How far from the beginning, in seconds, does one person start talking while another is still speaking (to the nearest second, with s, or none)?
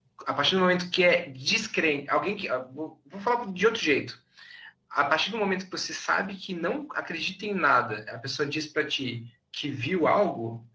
none